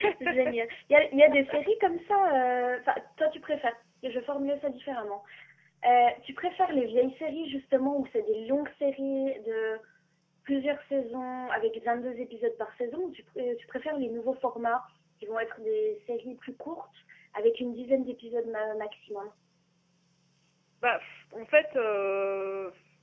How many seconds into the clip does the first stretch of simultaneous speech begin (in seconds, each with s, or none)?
none